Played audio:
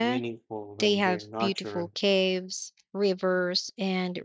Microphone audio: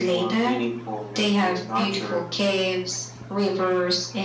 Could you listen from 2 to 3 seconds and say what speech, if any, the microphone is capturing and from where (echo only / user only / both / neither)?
echo only